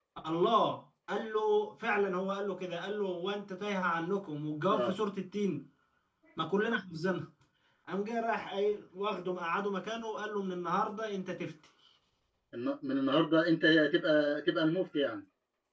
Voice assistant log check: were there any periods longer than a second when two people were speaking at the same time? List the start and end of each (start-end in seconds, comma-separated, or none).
none